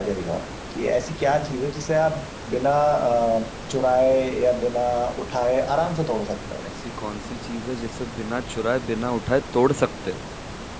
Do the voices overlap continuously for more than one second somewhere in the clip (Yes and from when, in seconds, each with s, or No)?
No